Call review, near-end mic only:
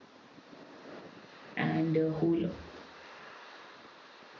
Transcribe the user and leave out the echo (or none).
and uh, who will